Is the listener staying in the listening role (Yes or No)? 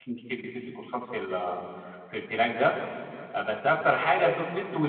Yes